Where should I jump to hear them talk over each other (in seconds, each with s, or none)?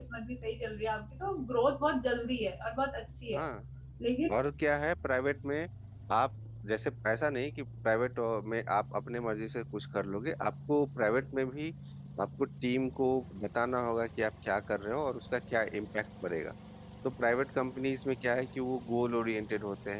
none